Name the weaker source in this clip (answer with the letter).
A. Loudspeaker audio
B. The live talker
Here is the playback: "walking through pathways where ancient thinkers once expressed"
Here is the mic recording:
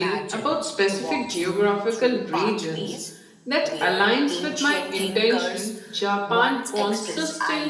A